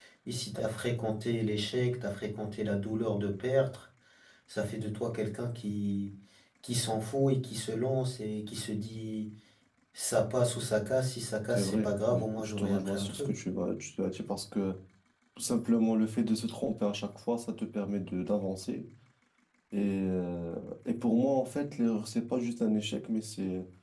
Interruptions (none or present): present